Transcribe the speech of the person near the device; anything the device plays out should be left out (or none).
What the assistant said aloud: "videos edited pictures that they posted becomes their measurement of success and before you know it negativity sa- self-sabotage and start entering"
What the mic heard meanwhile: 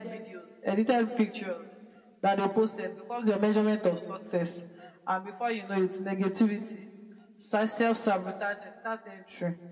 none